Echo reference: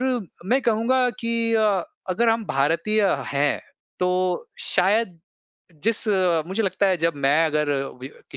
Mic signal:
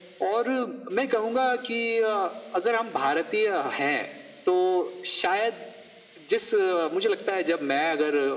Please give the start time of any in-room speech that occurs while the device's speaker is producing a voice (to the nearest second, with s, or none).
none